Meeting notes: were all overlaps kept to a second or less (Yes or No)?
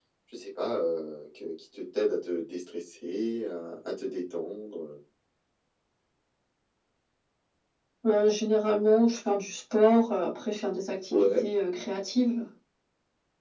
Yes